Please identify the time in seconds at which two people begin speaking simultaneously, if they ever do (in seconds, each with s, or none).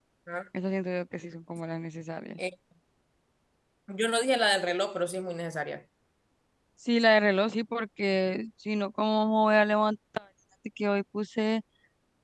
none